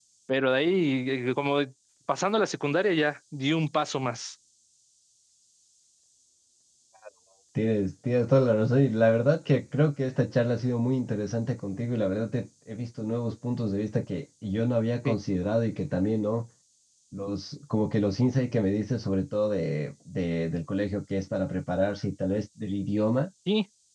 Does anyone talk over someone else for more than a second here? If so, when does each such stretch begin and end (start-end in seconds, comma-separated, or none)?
none